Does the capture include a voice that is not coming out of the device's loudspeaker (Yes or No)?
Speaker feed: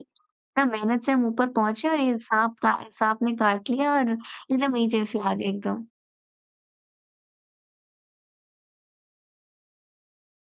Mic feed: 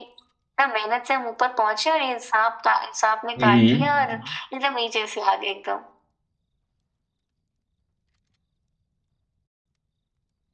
Yes